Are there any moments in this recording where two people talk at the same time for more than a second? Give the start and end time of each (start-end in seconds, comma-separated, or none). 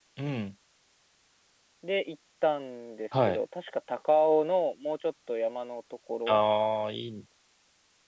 none